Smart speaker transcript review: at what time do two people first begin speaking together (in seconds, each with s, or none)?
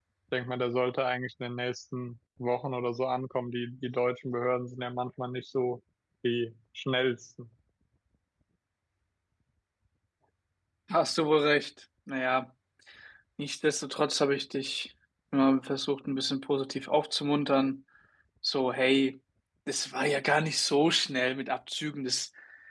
none